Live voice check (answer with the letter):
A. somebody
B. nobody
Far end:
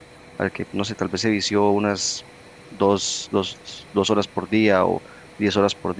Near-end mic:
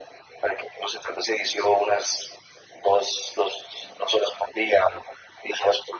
B